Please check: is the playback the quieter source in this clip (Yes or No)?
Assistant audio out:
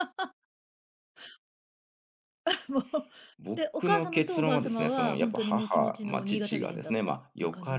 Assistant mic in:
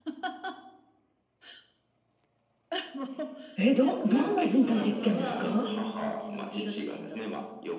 Yes